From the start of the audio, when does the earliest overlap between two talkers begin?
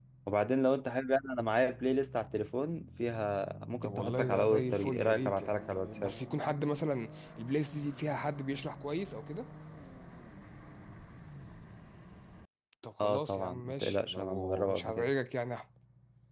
3.8 s

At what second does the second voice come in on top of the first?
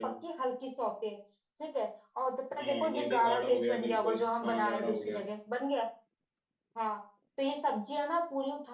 2.6 s

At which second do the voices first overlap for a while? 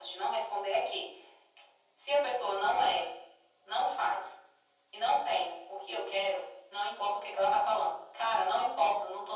none

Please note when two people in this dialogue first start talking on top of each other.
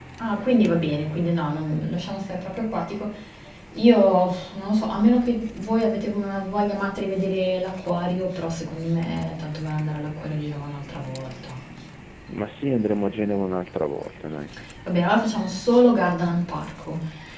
none

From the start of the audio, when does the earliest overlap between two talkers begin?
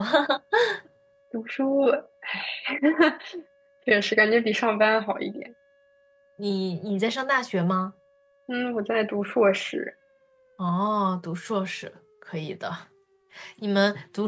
none

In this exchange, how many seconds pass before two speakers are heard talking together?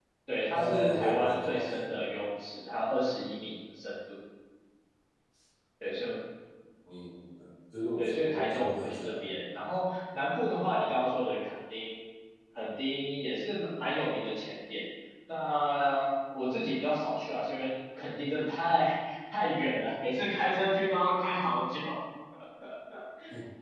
0.5 s

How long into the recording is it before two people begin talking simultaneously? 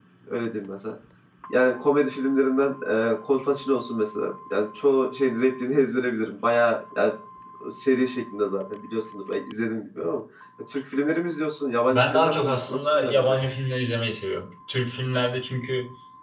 11.9 s

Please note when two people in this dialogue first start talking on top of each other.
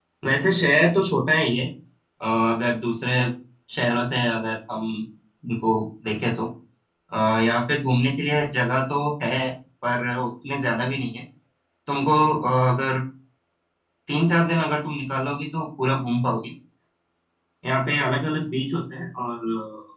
none

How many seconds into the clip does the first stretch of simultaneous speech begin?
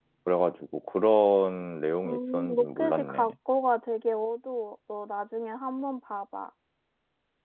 2.0 s

